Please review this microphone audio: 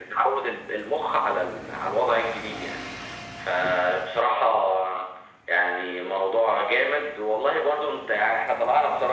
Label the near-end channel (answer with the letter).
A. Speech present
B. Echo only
B